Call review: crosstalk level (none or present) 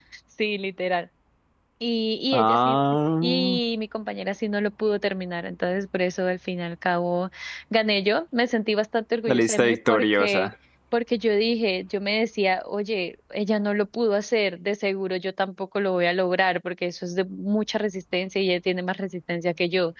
present